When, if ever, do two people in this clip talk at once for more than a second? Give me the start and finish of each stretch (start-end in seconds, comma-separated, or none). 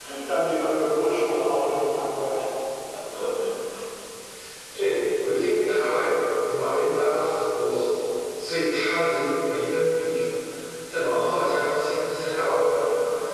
none